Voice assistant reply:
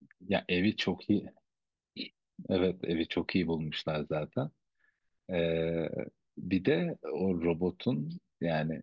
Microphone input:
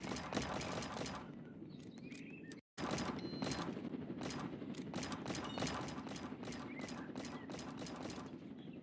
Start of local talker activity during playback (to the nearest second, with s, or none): none